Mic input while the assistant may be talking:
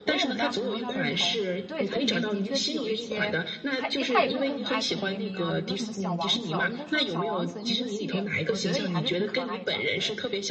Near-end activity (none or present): present